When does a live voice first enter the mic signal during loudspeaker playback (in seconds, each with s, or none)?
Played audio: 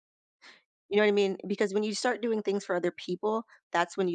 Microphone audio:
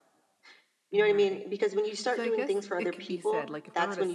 0.9 s